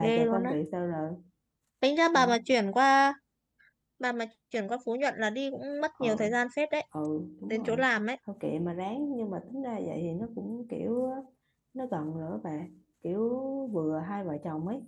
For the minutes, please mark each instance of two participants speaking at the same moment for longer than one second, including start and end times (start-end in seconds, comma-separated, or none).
none